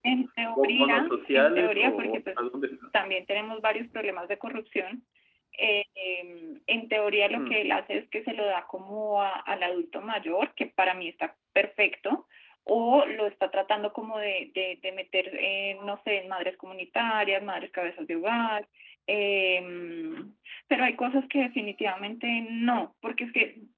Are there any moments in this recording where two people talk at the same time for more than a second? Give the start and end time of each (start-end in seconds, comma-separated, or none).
0.6-2.8